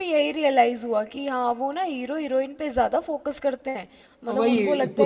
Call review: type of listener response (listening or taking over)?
taking over